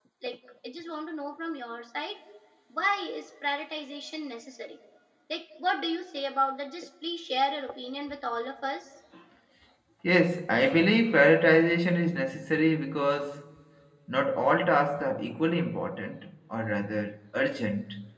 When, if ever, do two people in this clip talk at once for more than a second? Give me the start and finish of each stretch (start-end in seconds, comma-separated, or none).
none